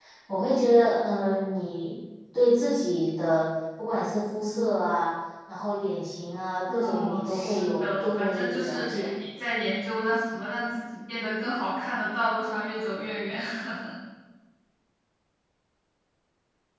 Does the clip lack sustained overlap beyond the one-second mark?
No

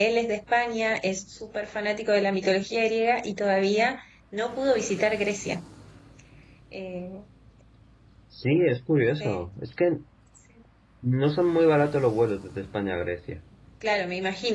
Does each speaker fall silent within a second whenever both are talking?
Yes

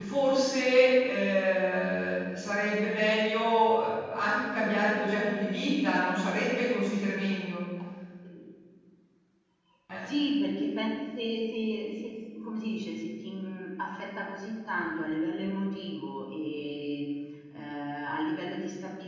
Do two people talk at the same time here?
No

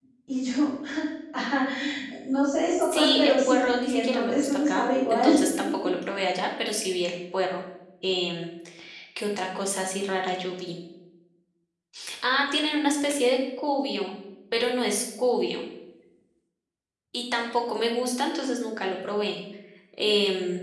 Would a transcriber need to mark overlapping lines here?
Yes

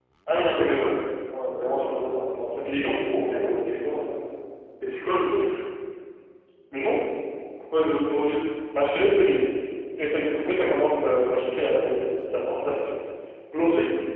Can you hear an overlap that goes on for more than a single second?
No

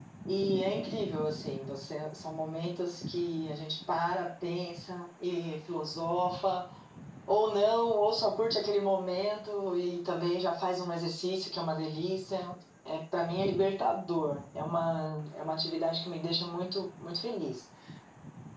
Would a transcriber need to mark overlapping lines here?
No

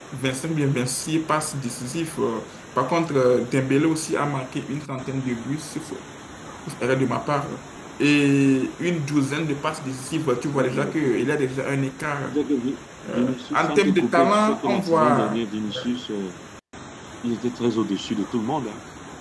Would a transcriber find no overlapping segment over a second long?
No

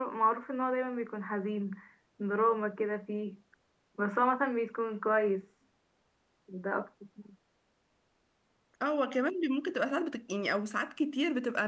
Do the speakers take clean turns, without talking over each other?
Yes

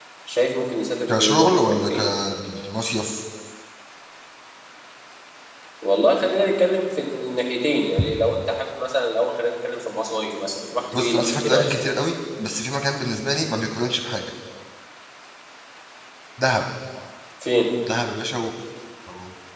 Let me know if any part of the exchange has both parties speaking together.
Yes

